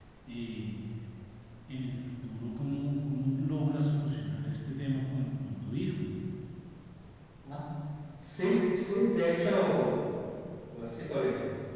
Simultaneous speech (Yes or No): No